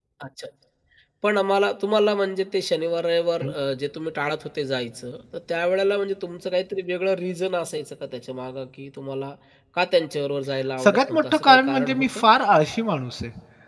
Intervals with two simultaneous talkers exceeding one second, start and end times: 10.8-12.2

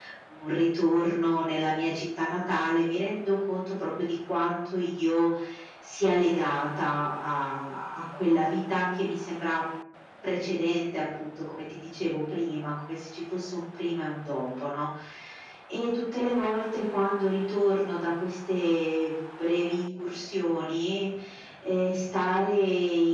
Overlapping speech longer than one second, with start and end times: none

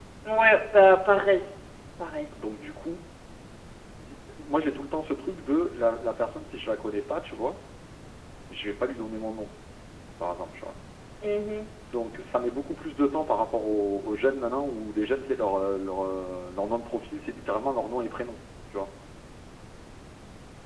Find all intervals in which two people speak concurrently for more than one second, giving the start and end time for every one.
none

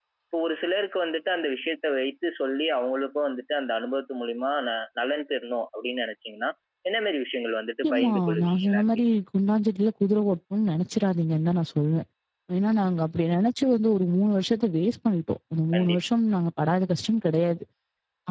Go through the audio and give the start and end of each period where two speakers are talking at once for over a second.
7.8-9.0

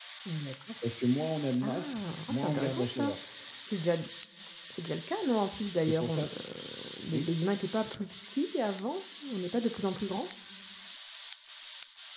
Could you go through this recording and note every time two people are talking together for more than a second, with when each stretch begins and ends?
1.6-3.1

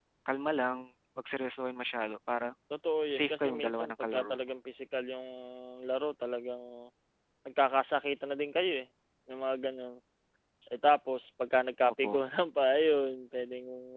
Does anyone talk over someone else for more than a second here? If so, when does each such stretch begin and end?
3.1-4.4

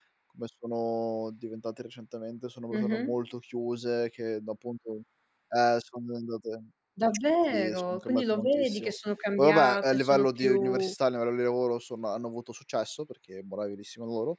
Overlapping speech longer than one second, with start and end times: 7.5-8.9, 9.4-10.9

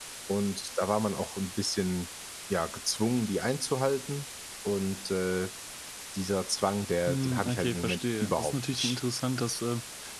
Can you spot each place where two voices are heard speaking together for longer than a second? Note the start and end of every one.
7.1-9.0

